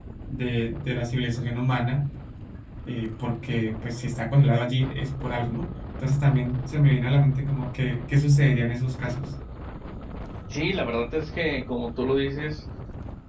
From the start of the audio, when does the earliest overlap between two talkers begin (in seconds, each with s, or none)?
none